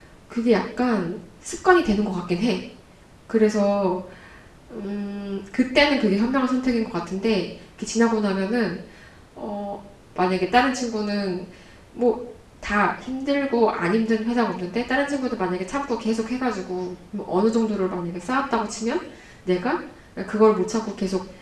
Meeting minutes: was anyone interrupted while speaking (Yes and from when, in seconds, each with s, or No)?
No